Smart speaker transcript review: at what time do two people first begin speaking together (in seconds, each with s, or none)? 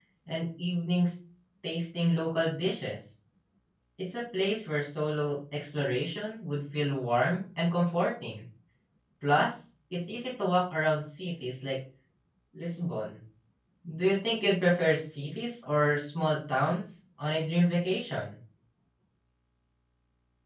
none